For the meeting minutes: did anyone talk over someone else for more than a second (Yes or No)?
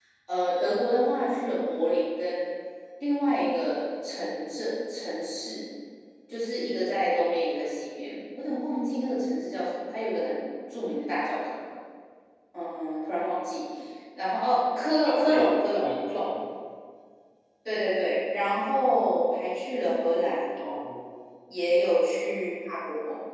Yes